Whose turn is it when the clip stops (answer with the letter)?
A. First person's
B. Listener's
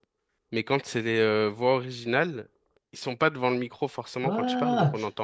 B